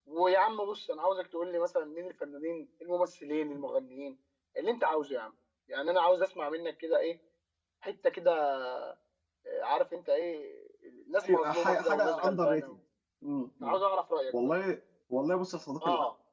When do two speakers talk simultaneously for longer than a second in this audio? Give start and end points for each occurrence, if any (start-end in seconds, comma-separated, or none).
11.2-12.7